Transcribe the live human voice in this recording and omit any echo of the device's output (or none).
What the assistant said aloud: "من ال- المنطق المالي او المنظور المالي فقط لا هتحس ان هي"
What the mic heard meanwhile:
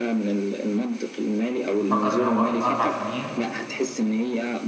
بفكر إن هو الأربع سنين